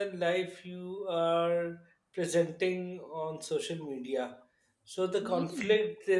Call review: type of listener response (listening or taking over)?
listening